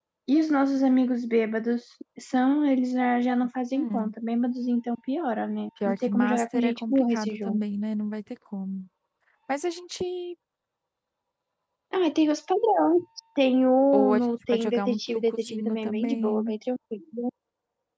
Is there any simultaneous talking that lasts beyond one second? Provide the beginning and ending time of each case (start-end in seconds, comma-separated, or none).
5.8-7.6, 13.9-16.6